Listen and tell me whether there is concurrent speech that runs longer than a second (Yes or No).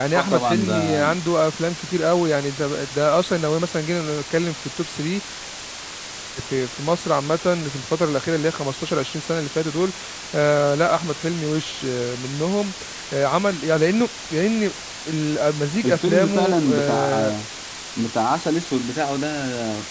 Yes